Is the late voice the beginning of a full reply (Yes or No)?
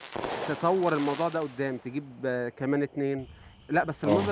No